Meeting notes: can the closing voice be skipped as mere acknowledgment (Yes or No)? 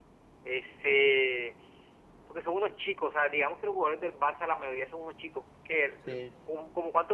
Yes